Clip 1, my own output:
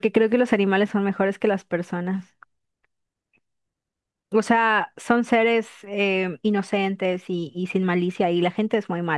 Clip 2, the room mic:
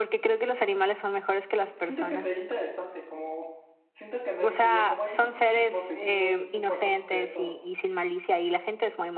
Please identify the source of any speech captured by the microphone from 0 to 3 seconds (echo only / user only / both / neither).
both